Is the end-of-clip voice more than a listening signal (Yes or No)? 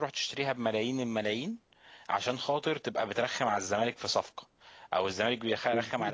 No